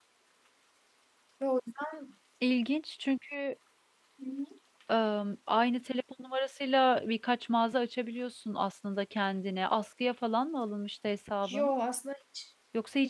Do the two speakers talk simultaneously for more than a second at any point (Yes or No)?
No